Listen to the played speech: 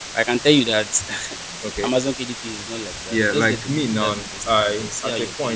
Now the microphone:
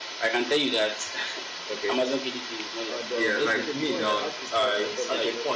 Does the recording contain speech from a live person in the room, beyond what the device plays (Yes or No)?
Yes